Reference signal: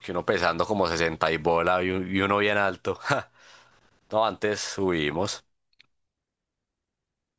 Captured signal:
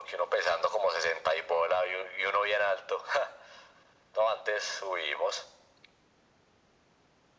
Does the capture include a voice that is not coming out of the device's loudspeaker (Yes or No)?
No